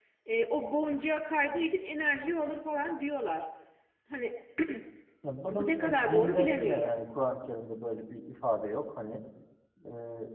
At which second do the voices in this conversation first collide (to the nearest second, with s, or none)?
6 s